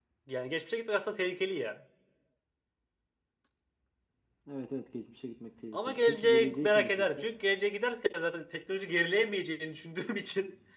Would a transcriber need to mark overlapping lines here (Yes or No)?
Yes